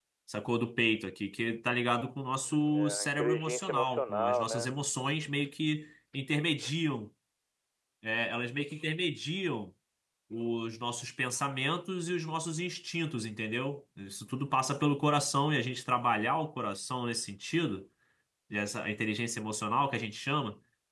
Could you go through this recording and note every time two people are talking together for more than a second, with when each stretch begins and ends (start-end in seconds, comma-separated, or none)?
2.7-4.7